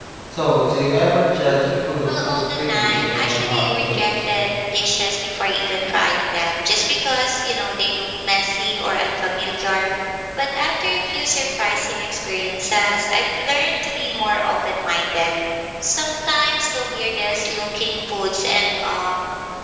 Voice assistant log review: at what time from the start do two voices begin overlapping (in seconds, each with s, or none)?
2.0 s